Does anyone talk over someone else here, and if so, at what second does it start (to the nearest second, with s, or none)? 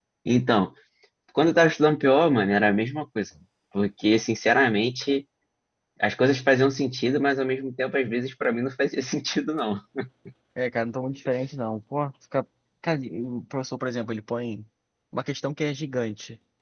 none